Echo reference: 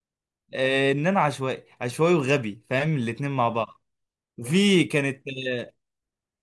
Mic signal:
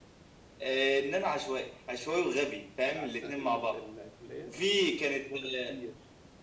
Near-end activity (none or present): present